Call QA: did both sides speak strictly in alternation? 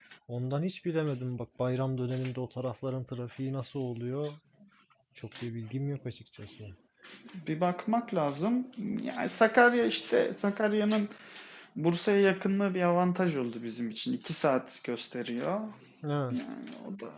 Yes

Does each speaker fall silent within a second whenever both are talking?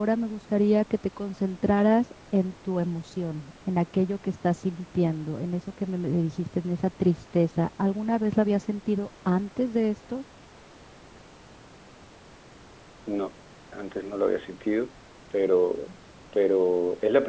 Yes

